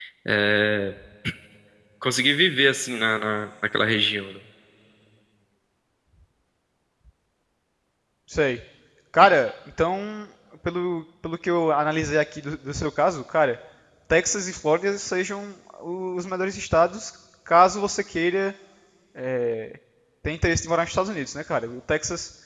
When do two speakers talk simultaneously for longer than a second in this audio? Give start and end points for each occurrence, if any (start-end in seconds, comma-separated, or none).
none